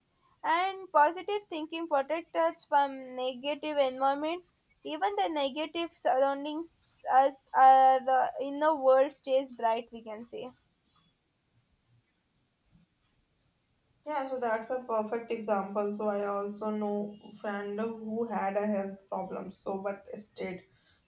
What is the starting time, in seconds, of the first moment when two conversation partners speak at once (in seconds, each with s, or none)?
none